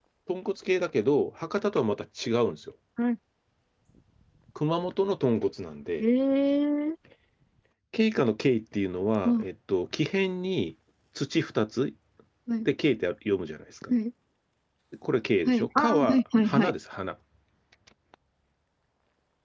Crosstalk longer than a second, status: present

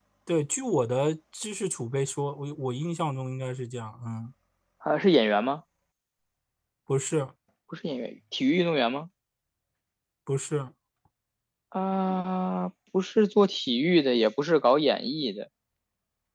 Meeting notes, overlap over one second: none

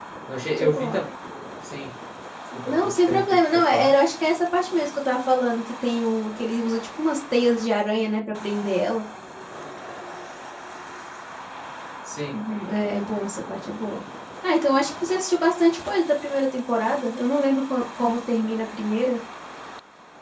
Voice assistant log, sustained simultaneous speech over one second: present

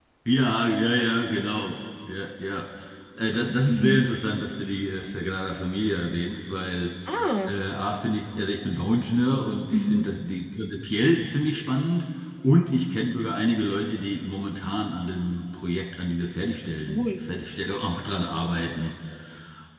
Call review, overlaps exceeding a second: none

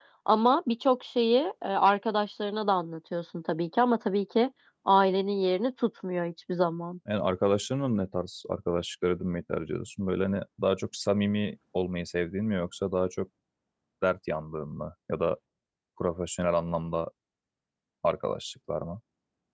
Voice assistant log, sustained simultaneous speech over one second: none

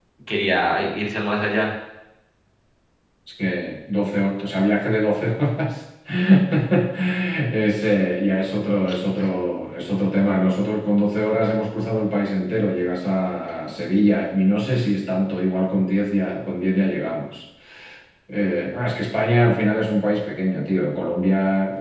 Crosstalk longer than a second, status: none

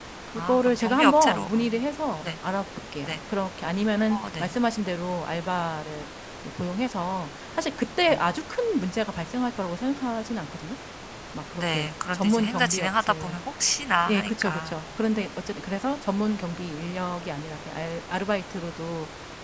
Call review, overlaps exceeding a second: present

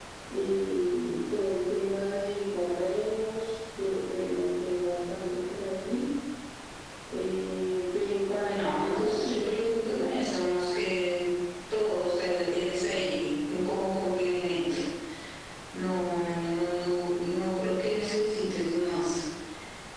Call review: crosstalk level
present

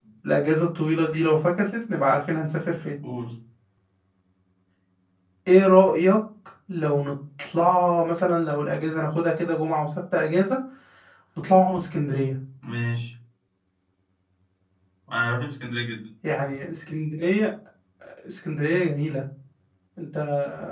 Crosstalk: none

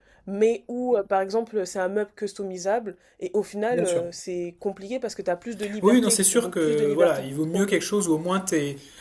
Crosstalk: present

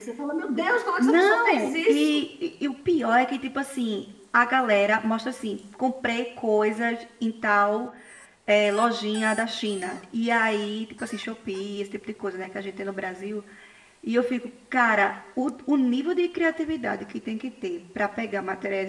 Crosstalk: present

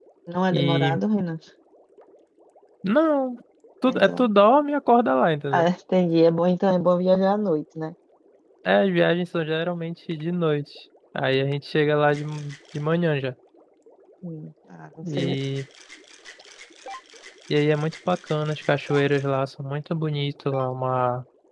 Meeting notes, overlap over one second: none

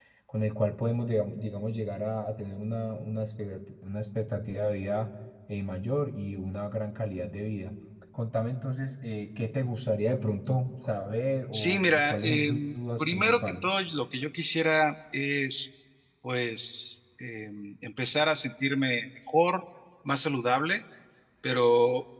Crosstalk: present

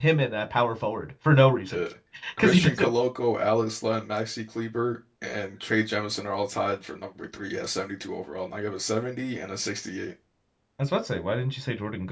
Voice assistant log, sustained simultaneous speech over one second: none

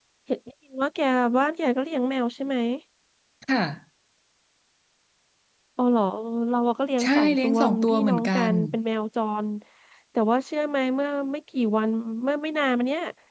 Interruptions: present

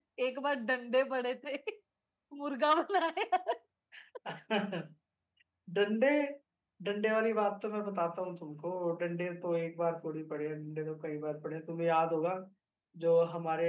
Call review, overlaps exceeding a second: none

